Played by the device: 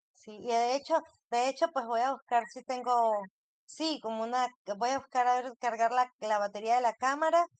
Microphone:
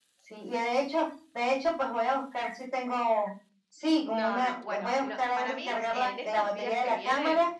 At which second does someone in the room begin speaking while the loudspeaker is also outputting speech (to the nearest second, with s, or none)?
4 s